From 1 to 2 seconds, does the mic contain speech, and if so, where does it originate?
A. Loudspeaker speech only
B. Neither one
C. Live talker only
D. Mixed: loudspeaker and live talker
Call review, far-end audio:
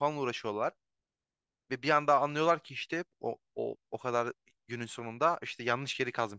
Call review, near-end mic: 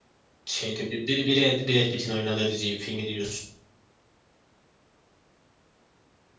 C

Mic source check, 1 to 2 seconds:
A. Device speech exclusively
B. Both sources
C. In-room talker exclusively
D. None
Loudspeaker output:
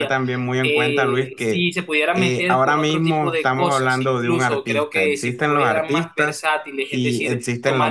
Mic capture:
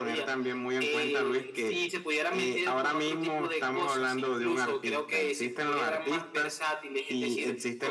A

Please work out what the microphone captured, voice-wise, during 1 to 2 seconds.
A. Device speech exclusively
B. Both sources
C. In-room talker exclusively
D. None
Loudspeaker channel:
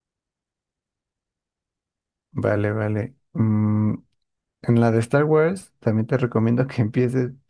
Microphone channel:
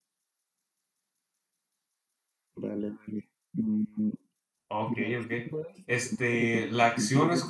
D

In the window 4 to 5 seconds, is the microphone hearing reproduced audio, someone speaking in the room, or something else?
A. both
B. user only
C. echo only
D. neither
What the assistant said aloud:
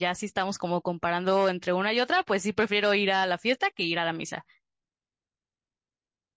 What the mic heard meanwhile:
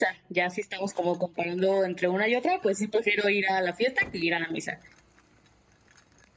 C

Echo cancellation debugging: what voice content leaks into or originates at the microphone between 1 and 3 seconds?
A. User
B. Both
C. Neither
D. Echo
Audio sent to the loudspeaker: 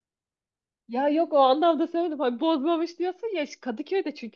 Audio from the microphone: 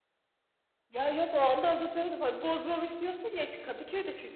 D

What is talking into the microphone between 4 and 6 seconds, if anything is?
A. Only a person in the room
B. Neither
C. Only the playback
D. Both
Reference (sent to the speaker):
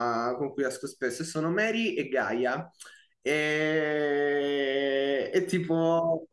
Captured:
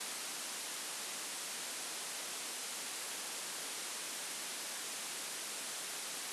B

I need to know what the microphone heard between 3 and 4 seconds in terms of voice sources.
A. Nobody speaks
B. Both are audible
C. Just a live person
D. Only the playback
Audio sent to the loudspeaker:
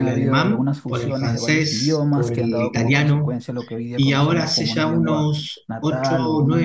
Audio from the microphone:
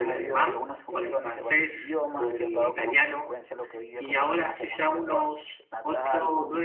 D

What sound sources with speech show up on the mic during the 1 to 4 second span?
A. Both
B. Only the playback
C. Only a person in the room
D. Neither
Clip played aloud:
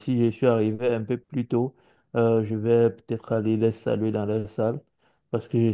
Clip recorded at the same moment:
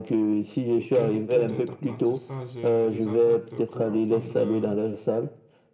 A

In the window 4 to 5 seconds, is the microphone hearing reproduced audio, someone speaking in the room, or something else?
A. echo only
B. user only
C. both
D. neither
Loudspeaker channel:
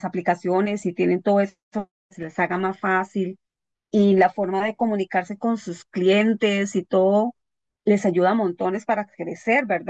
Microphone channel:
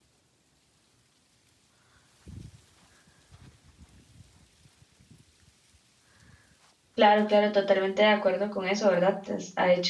D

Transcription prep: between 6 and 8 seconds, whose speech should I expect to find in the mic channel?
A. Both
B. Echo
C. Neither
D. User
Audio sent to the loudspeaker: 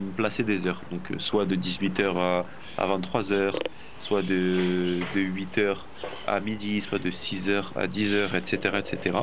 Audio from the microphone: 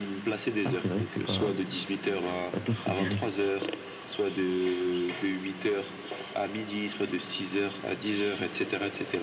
B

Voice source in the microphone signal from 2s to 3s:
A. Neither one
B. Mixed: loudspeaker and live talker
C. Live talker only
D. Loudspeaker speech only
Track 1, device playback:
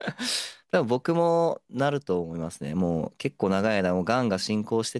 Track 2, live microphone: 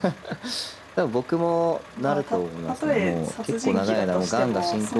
B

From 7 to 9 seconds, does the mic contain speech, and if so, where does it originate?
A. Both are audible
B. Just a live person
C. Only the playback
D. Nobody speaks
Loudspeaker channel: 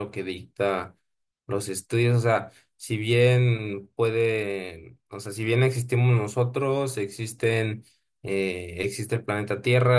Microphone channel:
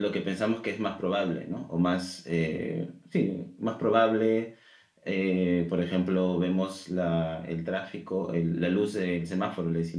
B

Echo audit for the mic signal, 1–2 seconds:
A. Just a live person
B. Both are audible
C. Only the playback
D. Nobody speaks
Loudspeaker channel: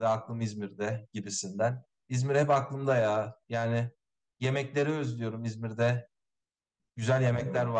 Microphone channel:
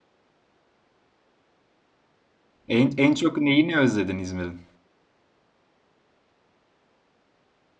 D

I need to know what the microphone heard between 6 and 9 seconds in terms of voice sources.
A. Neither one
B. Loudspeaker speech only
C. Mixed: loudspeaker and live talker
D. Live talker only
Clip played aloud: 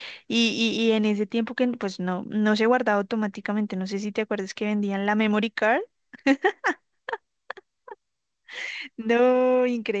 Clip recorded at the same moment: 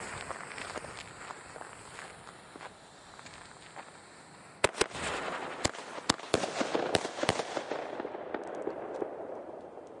A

